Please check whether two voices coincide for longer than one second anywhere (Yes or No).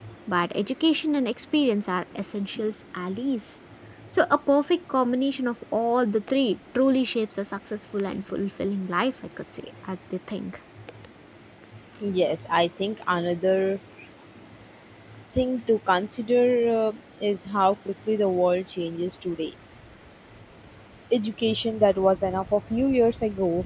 No